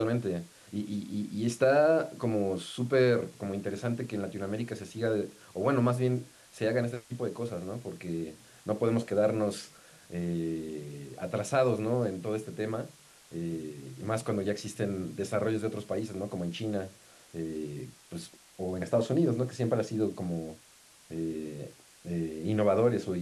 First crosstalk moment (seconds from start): none

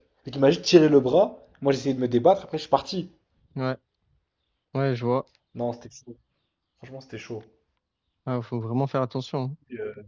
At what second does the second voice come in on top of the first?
none

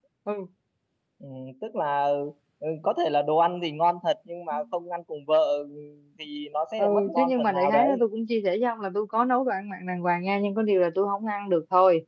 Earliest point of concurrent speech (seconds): 6.8 s

